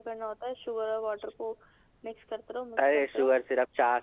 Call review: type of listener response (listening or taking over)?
taking over